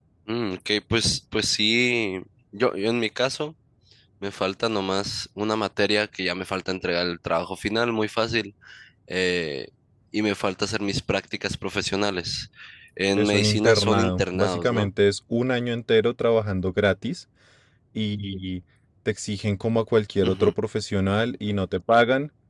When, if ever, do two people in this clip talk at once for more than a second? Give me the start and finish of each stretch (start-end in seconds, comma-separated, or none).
13.2-14.9